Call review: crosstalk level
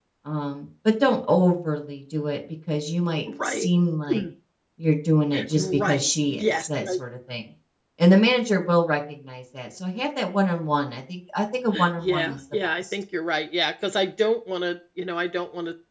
present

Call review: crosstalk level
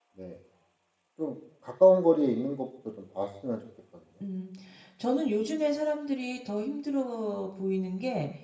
none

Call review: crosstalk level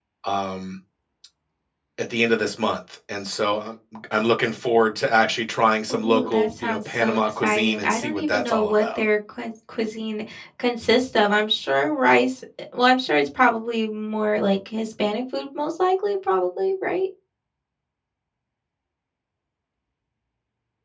present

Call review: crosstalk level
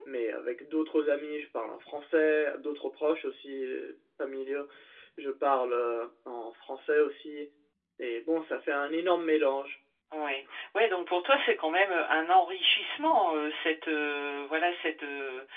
none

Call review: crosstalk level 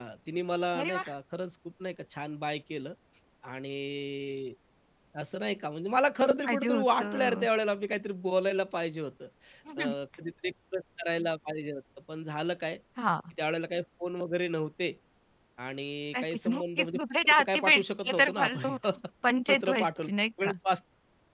present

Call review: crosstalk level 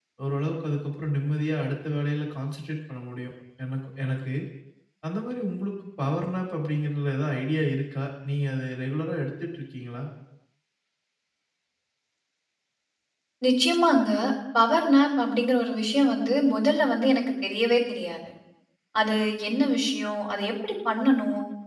none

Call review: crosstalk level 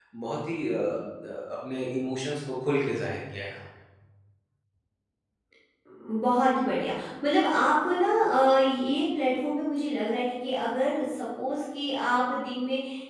none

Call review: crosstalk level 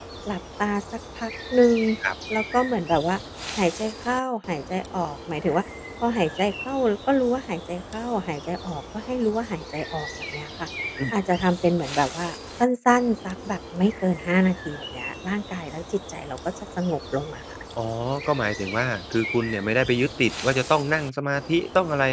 none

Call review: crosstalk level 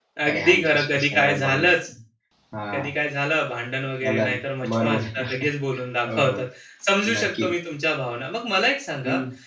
present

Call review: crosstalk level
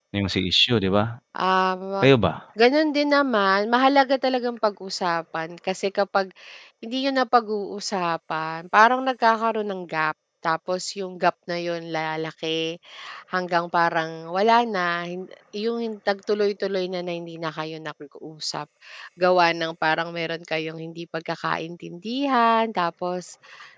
none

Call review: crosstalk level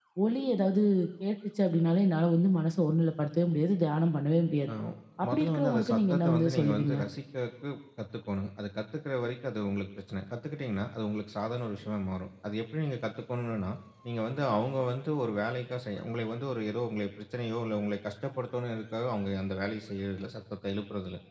present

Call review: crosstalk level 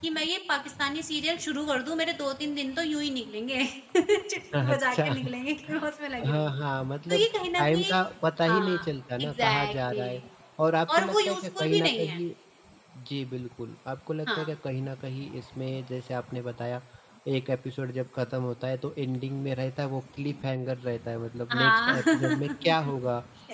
present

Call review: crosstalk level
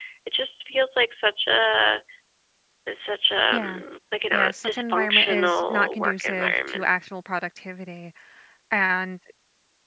present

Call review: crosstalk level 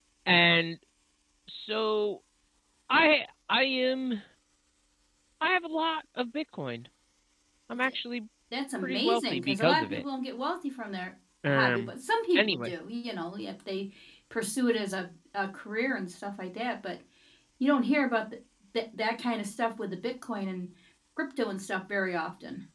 present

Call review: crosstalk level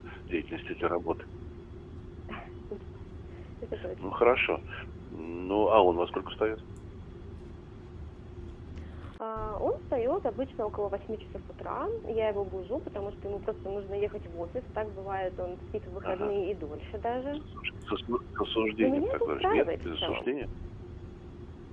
present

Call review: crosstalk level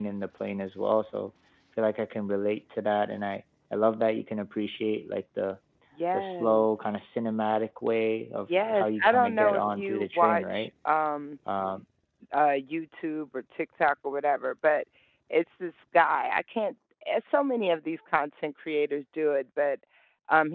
present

